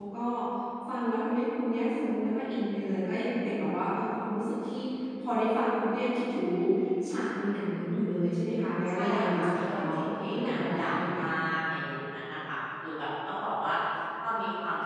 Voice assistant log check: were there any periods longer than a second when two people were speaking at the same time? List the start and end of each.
8.9-11.3

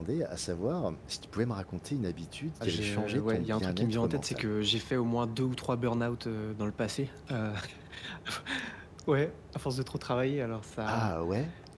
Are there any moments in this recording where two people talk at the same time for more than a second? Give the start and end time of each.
2.6-4.5

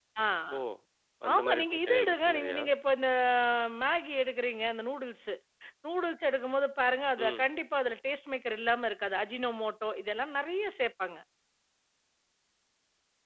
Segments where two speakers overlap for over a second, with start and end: 1.3-2.6

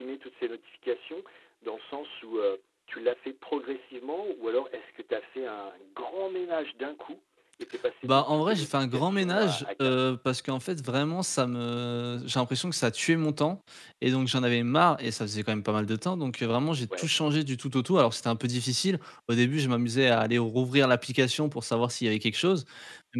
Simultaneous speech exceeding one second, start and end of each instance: 8.0-9.9

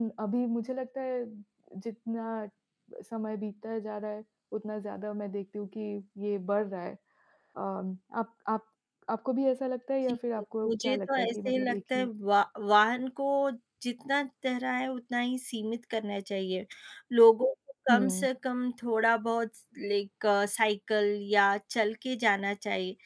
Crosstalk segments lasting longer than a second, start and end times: 10.6-12.1

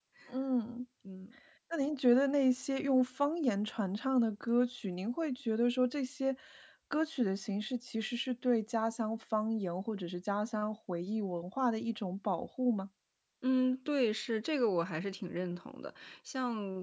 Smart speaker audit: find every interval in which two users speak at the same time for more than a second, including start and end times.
none

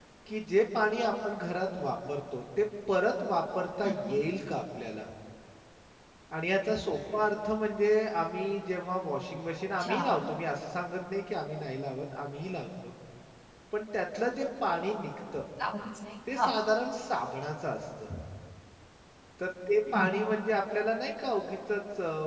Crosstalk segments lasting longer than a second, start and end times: none

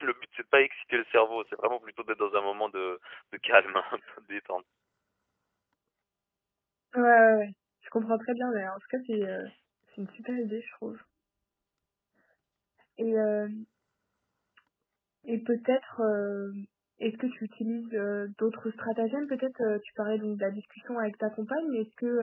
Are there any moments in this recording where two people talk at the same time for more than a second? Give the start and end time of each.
none

